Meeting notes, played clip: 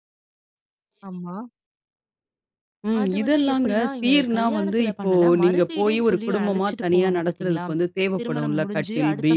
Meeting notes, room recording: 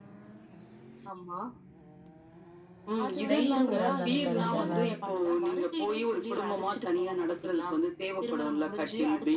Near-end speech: present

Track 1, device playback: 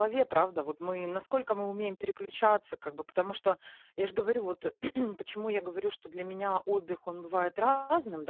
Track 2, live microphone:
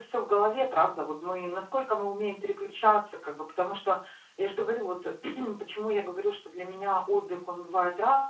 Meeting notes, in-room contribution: none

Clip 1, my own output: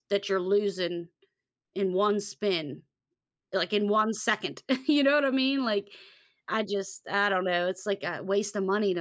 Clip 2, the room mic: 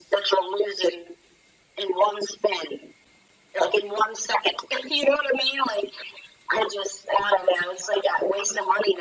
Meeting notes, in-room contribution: none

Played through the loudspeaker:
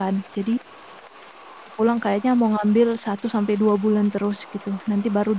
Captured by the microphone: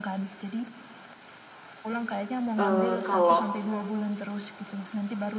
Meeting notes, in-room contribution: present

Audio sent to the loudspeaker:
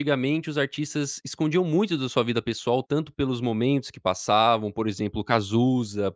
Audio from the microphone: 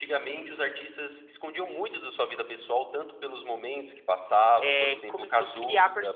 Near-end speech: present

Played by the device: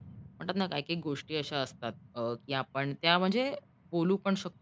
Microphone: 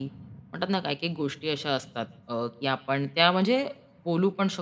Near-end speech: none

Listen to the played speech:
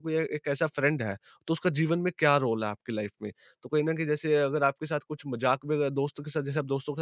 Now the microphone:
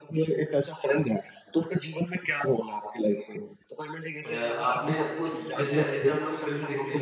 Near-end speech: present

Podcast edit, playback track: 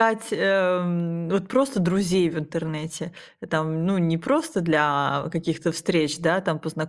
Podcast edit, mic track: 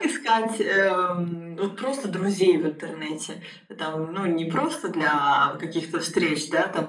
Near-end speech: none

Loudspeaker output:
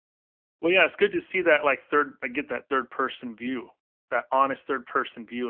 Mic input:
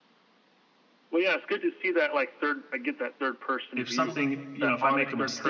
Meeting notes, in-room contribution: present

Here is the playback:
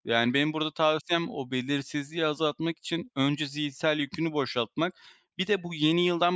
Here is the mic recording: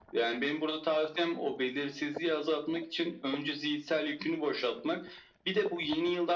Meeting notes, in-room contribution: none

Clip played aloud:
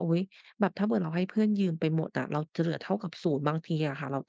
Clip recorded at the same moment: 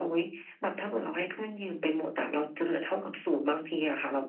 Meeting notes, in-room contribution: none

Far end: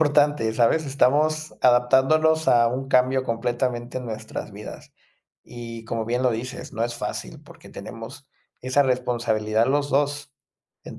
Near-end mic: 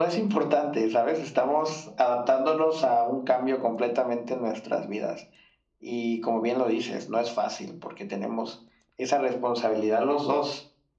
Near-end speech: none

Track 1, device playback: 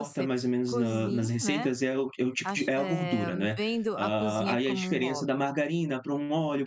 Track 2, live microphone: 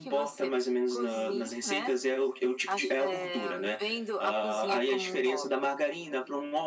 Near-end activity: none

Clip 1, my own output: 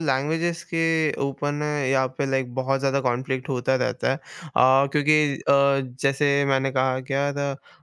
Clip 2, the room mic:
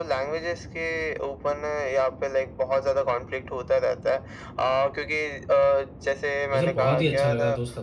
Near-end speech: present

